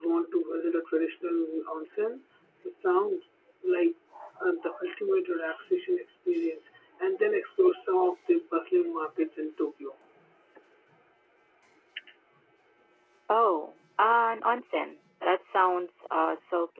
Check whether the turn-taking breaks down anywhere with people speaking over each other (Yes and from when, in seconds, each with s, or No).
No